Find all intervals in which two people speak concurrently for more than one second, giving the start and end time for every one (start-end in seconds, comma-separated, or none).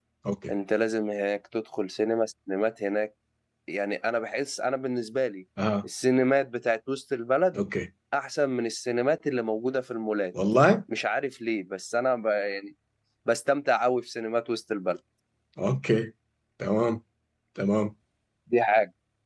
none